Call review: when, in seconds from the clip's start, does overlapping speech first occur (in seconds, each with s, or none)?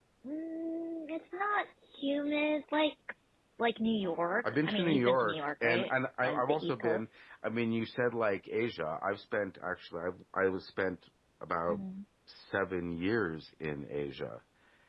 4.4 s